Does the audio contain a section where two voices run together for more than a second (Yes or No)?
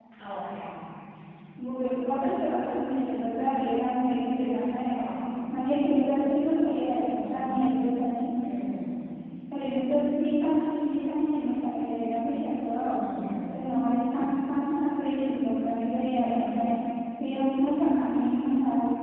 No